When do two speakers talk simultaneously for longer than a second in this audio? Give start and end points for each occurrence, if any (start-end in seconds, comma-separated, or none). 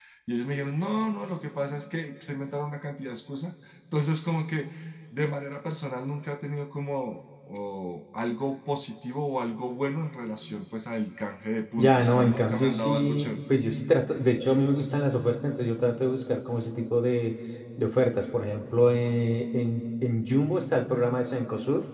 11.8-13.4